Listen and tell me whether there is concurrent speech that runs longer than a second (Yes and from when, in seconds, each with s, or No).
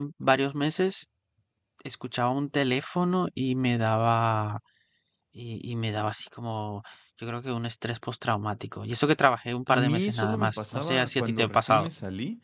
Yes, from 9.7 s